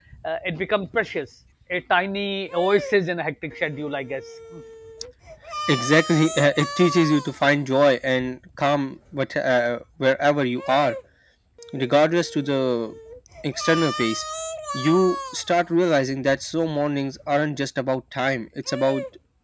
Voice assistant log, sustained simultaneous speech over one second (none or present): none